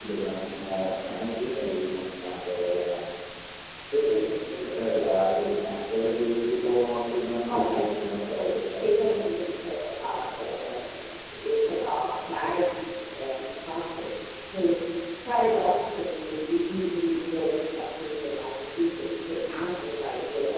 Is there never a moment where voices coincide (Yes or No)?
No